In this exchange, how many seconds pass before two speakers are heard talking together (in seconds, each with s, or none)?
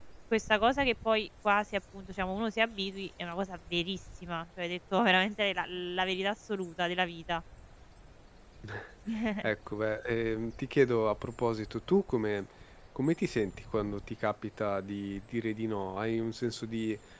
none